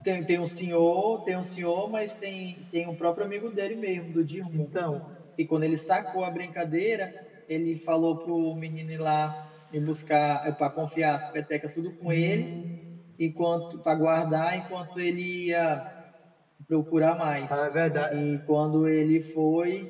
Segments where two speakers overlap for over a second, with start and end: none

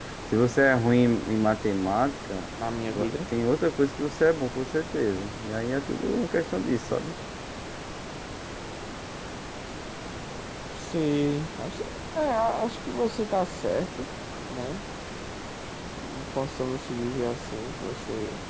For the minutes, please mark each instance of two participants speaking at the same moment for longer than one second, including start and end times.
none

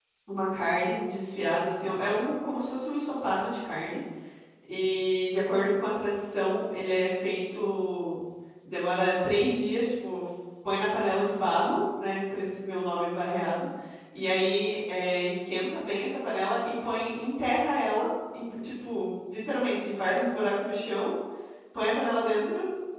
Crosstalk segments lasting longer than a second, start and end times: none

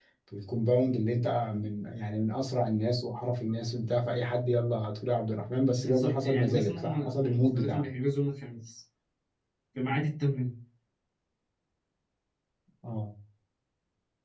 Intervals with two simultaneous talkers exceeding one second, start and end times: 5.8-7.9

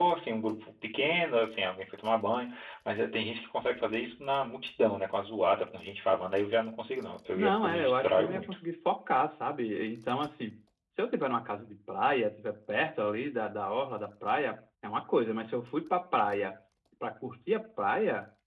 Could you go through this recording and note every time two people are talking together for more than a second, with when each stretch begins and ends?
7.3-8.6

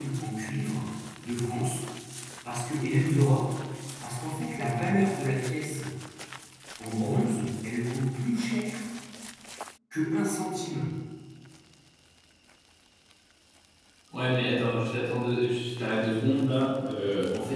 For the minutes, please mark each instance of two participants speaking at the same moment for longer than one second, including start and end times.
none

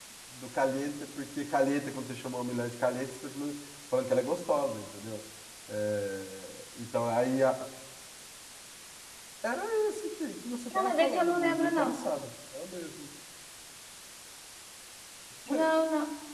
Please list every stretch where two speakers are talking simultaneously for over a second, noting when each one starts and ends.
10.7-12.0

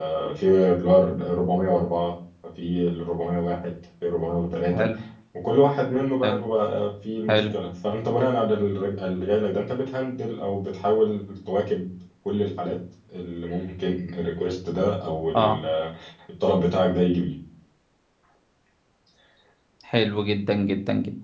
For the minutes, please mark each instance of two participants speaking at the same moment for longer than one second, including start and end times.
none

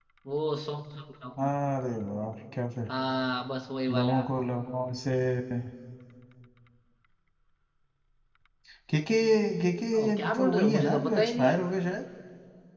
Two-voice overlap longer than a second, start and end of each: 10.0-11.6

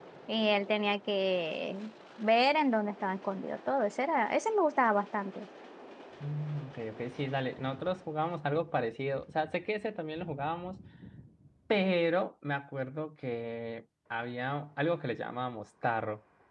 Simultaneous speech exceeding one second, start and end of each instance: none

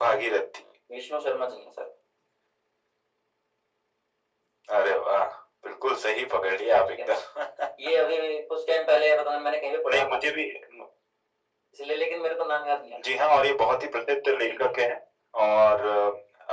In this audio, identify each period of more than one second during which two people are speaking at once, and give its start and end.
none

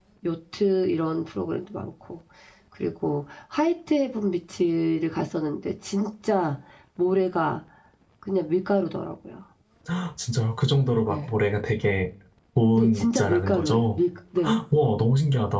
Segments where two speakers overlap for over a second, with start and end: 12.8-14.0

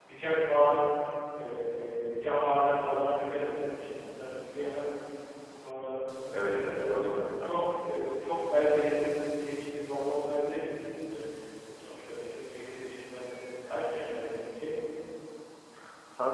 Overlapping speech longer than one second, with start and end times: 6.3-7.5

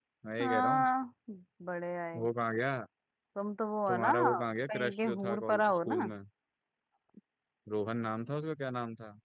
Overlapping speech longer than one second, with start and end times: 4.7-6.1

